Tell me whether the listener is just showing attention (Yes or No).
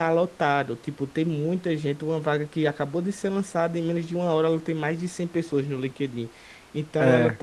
Yes